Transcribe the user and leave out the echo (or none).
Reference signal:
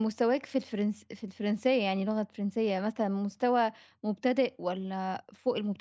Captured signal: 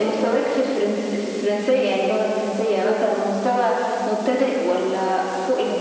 none